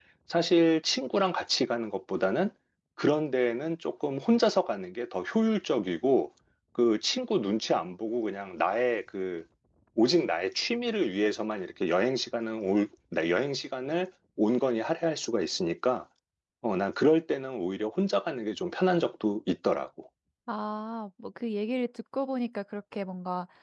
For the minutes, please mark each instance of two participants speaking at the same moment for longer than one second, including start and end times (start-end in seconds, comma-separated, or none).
none